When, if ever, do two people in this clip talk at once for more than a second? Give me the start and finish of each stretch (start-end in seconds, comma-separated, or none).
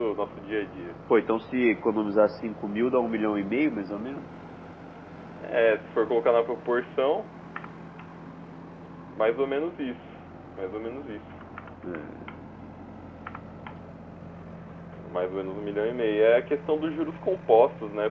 none